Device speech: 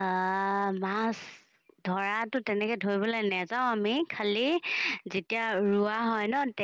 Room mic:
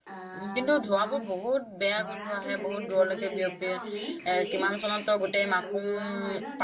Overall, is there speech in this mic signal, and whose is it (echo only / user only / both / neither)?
both